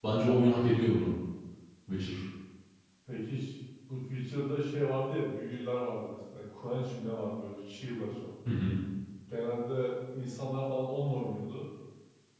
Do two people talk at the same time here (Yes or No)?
No